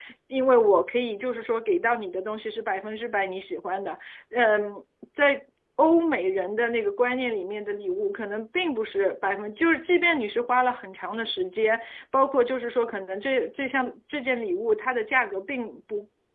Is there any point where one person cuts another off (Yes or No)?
No